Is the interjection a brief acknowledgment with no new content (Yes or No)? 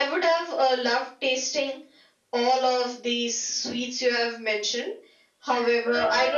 No